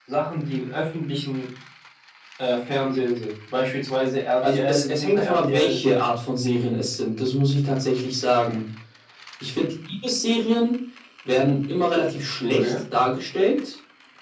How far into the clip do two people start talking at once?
4 s

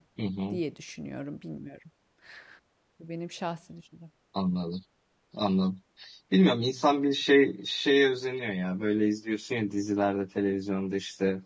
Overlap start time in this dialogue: none

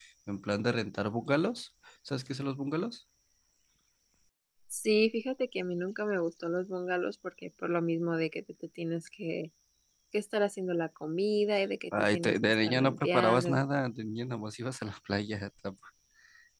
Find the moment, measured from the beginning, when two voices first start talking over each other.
12 s

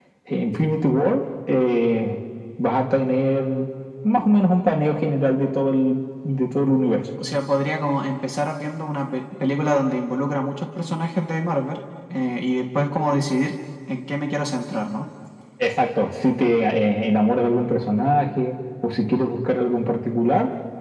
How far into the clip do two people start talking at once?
none

